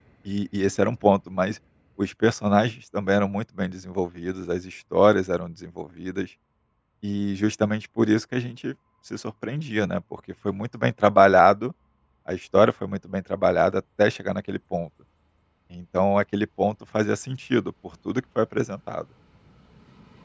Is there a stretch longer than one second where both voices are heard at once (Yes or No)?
No